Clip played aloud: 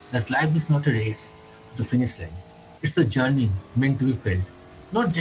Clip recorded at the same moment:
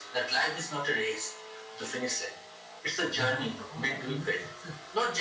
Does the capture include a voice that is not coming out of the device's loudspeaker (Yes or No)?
Yes